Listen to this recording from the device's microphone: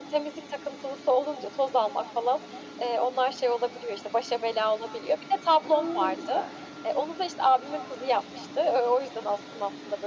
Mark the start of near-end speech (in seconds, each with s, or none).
5.6 s